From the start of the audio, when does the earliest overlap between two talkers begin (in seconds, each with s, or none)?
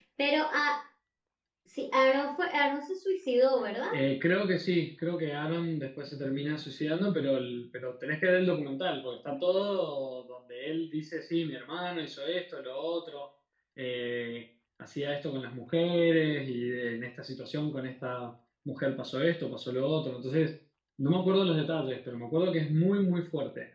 none